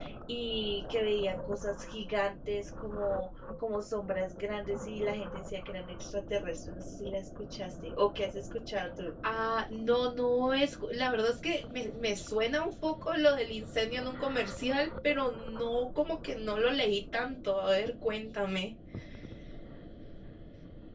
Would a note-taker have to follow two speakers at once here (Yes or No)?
No